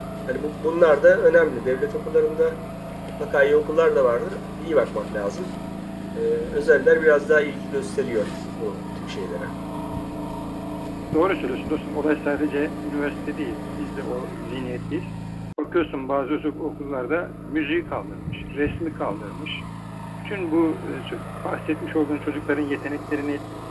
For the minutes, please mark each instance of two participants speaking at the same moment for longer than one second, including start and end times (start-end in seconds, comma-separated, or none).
none